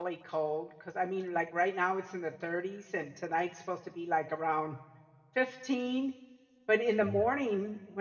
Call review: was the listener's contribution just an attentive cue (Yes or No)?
Yes